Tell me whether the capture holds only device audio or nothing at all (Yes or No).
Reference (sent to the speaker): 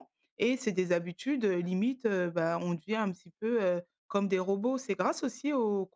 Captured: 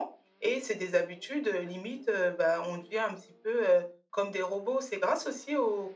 Yes